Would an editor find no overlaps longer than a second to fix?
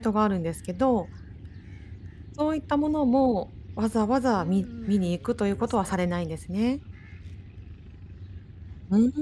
No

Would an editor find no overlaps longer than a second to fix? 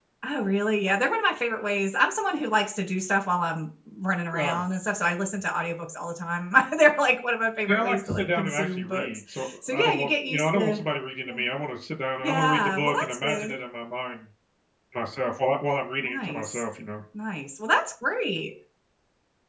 No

